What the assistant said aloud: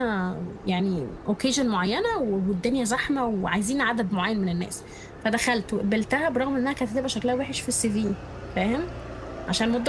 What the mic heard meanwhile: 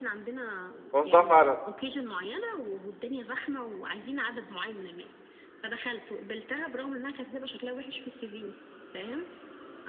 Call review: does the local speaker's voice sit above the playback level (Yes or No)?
Yes